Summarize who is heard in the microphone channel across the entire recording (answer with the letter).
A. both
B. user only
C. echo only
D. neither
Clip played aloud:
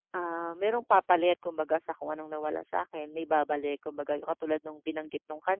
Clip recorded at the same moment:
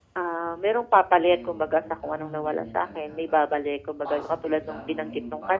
A